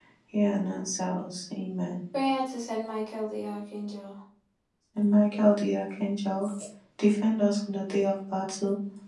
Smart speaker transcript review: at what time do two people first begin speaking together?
none

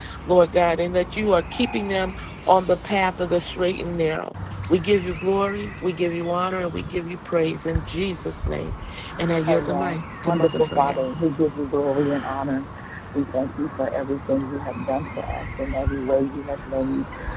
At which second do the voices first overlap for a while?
9.5 s

